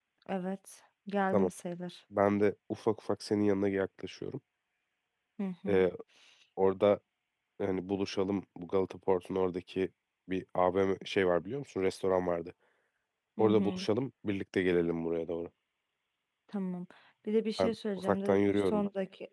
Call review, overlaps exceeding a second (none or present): present